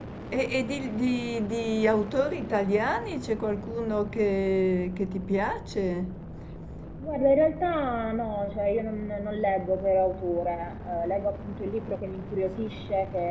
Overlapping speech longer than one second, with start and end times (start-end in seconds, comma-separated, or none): none